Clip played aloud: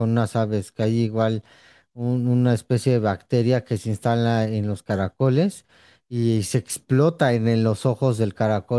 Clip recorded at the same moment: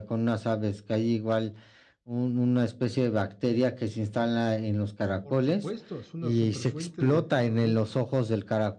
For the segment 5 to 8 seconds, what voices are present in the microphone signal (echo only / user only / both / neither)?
both